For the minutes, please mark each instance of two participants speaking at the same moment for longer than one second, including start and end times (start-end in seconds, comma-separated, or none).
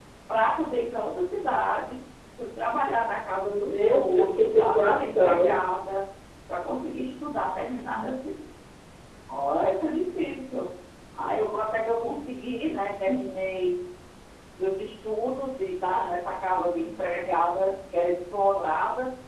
3.4-5.6